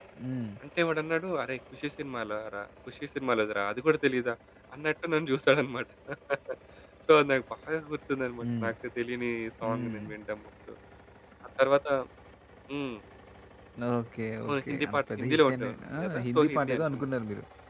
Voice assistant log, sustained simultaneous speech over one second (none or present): present